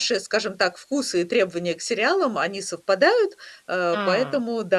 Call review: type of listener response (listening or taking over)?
listening